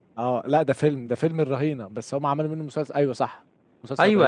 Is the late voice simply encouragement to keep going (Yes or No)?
No